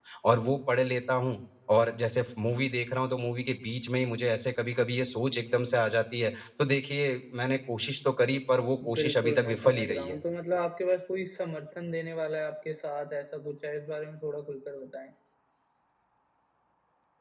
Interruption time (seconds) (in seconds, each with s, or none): 8.8 s